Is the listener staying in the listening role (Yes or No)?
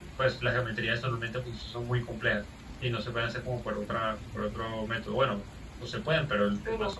Yes